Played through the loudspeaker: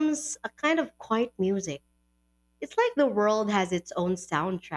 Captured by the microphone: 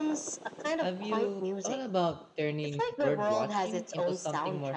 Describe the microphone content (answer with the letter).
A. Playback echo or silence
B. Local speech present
B